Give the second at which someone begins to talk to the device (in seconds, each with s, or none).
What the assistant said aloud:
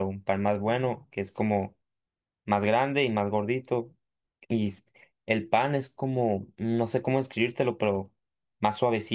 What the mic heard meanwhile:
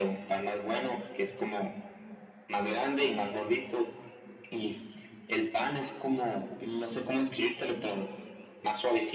none